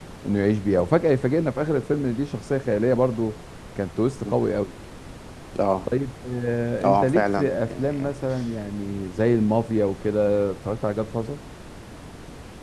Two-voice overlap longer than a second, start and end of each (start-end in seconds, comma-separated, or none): 6.8-8.1